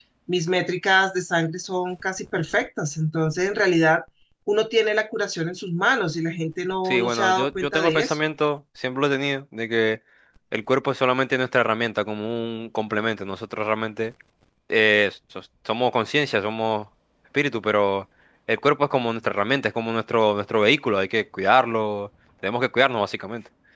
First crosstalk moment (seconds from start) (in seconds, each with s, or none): 6.8 s